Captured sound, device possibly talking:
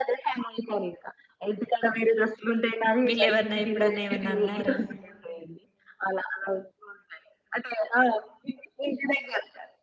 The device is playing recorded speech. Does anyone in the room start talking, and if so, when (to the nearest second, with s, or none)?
3 s